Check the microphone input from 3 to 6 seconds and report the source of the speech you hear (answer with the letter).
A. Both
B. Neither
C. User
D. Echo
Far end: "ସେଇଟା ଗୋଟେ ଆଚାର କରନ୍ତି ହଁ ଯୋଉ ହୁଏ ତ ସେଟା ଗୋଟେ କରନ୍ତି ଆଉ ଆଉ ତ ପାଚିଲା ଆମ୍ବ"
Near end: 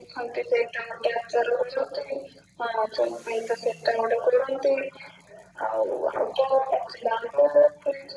D